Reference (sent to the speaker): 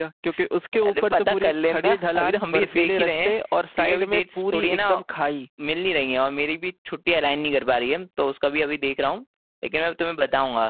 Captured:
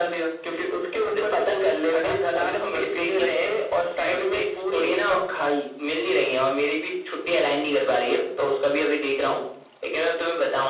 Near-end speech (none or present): none